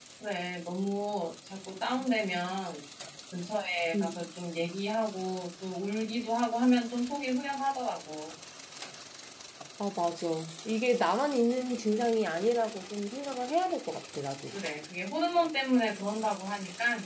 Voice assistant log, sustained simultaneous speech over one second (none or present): none